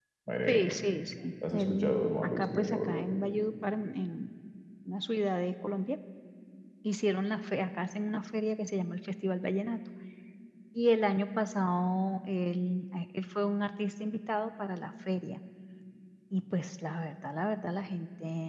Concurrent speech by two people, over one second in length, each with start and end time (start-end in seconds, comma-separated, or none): 1.5-3.0